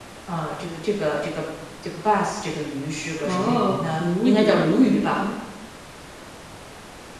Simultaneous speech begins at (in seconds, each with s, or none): 3.2 s